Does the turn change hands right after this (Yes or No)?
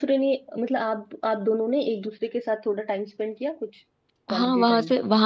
Yes